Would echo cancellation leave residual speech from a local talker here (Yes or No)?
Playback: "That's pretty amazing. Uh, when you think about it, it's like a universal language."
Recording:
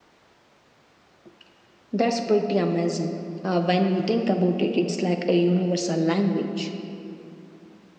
No